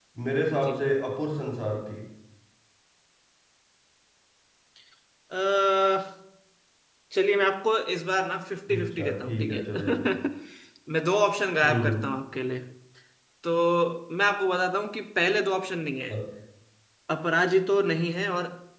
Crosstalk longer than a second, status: present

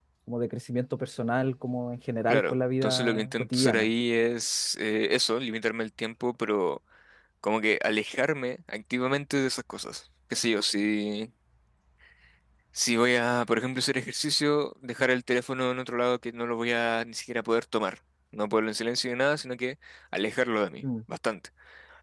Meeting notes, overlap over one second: present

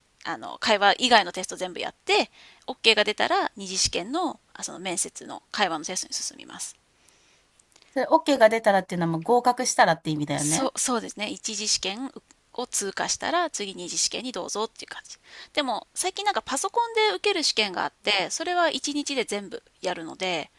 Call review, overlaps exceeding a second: none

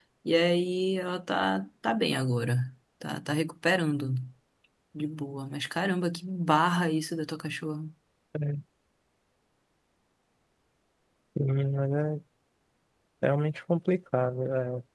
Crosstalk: none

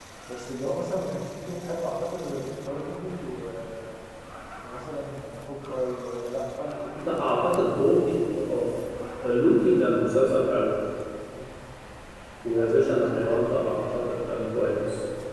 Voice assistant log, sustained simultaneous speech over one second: present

